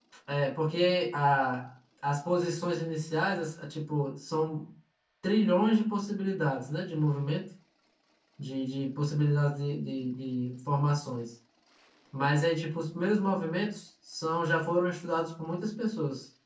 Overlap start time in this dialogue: none

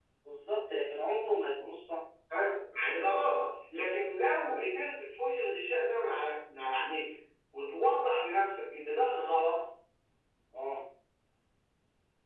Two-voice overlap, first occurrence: none

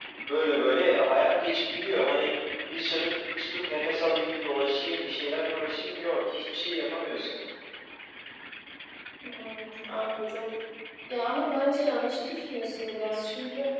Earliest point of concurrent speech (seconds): none

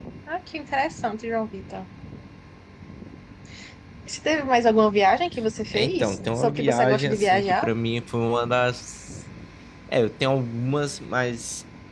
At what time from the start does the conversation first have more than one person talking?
5.7 s

